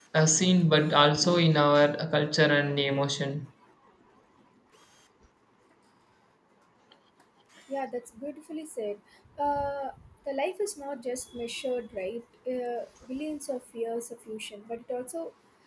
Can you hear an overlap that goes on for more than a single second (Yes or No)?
No